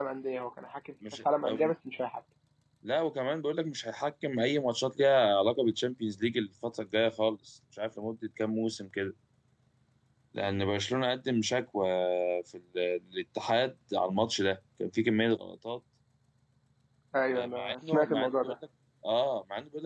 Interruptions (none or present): present